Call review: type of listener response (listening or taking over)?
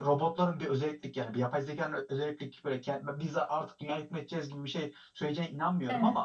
listening